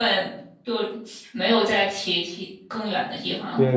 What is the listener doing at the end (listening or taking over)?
taking over